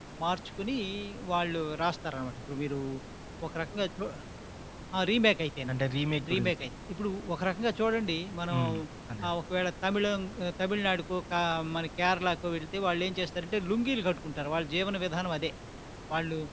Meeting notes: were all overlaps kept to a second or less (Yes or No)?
Yes